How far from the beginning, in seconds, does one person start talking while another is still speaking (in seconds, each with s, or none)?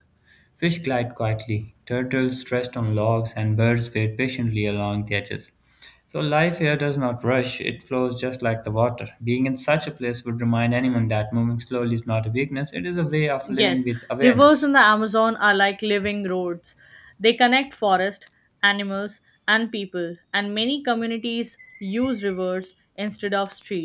13.5 s